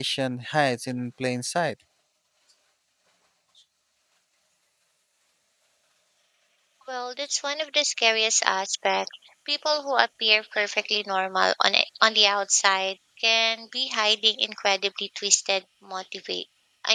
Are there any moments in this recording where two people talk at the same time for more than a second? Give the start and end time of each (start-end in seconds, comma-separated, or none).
none